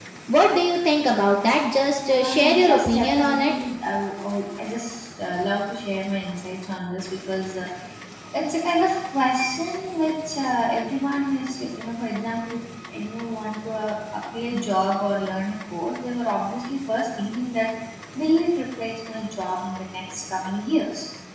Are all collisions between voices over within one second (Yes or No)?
No